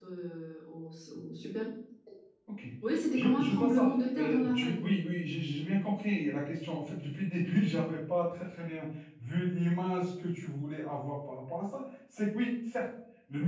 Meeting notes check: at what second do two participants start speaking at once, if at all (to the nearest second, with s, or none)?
3 s